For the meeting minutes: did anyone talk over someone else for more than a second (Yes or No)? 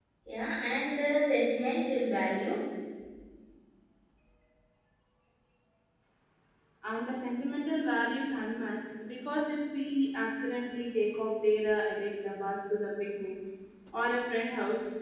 No